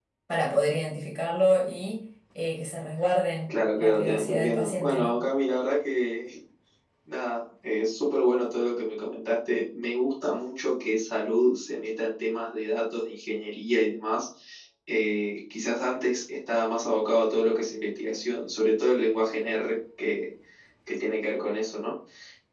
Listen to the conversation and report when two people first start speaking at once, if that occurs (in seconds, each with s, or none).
3.5 s